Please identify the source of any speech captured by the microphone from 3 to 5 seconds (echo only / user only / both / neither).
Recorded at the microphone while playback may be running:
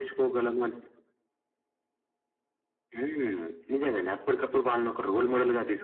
echo only